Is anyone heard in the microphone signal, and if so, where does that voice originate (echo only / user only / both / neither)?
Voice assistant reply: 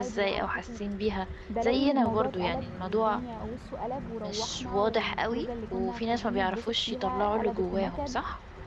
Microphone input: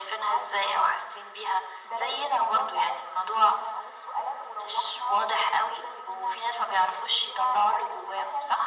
echo only